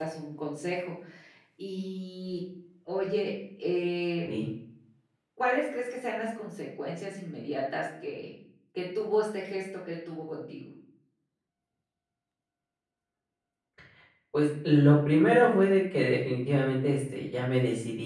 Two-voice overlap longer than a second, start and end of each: none

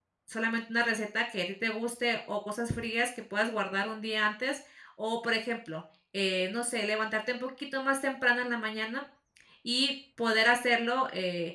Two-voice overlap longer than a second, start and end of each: none

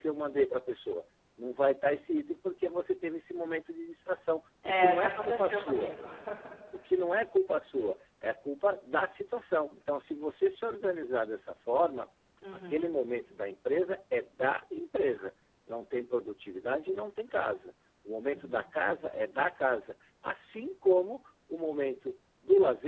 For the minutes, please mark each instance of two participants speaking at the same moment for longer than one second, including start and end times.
4.7-5.9

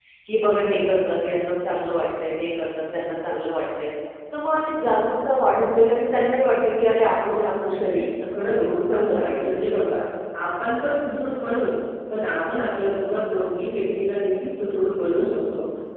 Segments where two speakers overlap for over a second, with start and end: 7.6-9.6

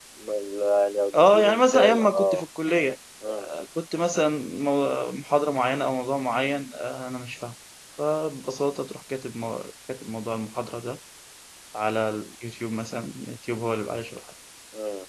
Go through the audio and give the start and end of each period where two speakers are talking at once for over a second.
1.1-2.4

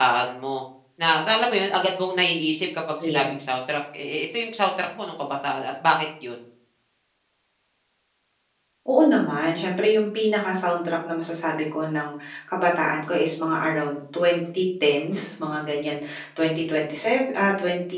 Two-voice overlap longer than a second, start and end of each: none

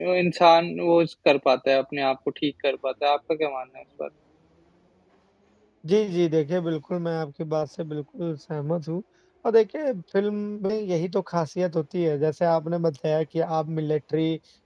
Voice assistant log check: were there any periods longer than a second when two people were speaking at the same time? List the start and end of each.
none

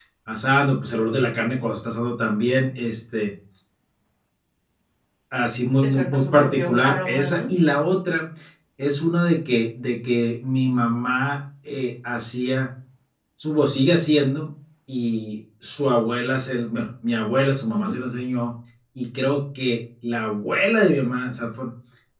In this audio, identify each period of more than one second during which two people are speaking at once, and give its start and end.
5.8-7.4

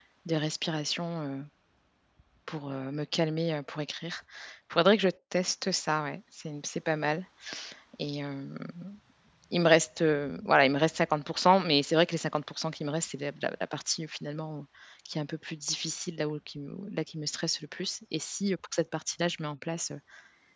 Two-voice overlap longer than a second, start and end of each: none

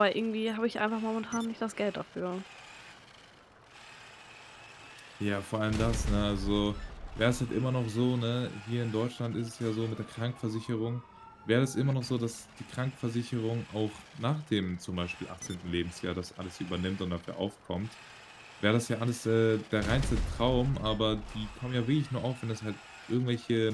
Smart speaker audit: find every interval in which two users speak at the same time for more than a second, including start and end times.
none

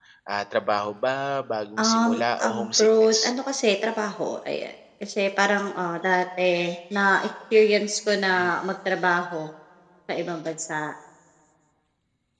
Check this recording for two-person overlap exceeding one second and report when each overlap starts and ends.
1.8-3.3

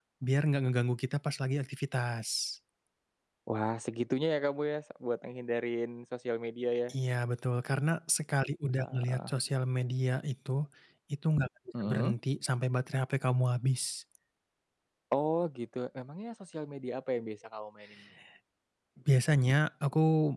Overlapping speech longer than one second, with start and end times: none

